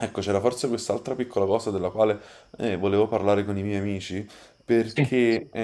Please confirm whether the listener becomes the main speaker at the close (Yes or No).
No